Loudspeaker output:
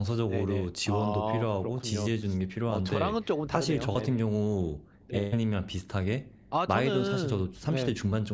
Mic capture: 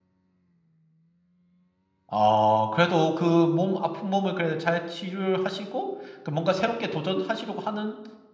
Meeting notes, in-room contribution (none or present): present